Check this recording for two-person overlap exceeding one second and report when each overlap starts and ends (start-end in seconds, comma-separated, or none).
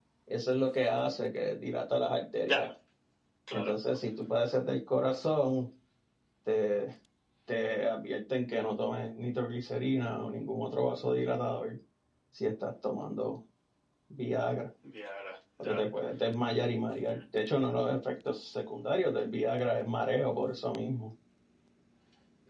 none